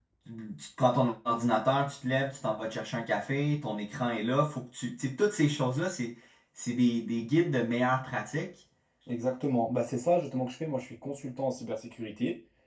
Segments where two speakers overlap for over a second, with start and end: none

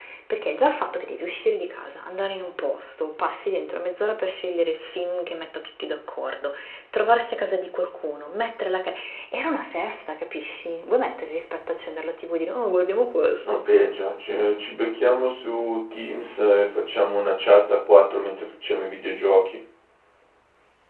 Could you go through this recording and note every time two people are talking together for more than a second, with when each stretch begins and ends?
none

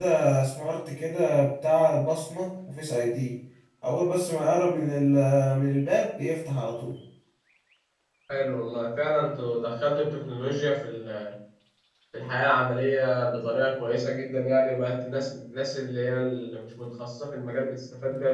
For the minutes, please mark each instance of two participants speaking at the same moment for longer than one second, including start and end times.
none

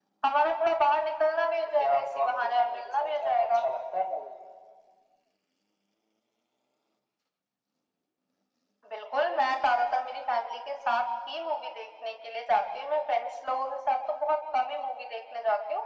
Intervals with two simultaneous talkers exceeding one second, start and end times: 1.8-3.6

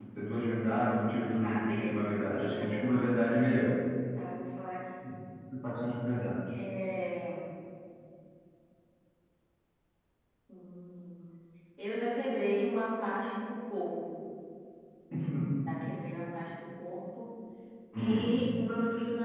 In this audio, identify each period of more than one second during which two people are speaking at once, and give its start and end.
1.4-3.1

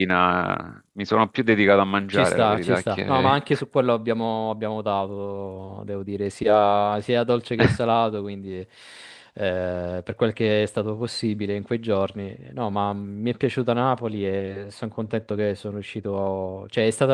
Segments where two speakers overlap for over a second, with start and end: 2.1-3.4

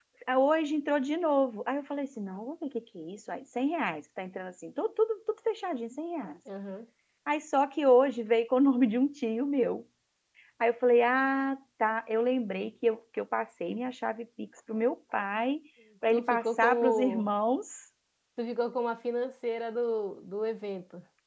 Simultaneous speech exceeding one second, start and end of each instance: 16.1-17.3

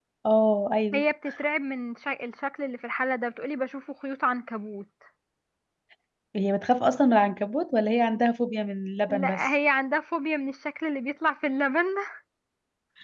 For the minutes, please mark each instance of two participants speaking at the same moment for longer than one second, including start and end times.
none

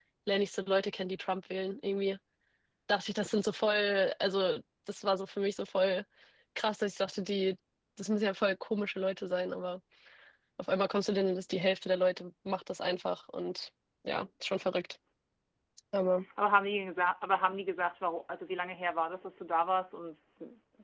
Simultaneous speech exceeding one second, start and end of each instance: none

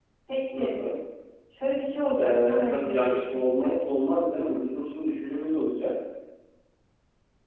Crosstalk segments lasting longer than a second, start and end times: 2.2-3.8

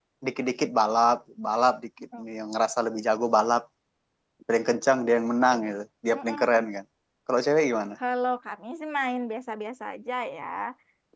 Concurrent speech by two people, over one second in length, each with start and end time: none

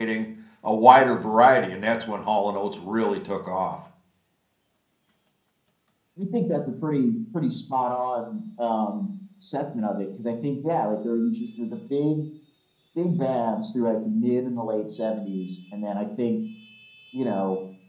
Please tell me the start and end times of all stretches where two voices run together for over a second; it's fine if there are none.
none

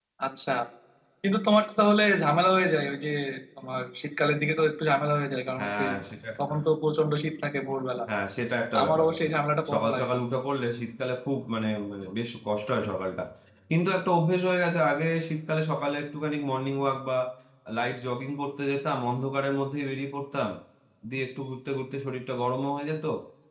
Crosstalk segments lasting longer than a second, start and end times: none

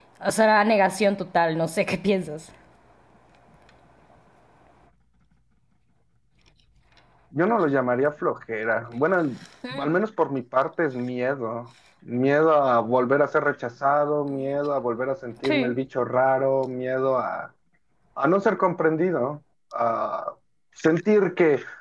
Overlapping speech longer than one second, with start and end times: none

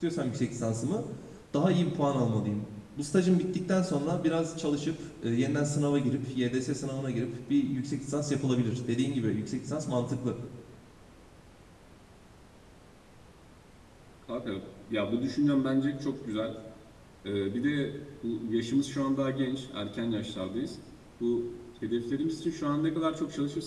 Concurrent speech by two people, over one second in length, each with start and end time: none

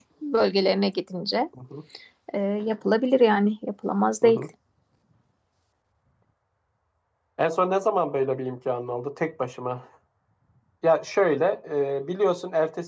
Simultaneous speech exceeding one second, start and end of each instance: none

